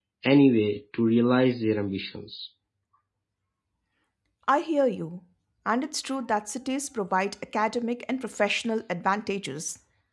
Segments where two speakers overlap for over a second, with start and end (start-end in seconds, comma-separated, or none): none